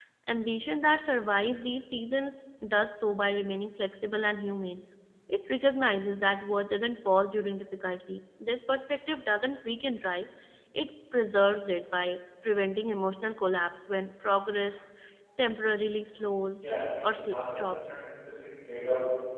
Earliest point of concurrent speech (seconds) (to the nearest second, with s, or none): 17 s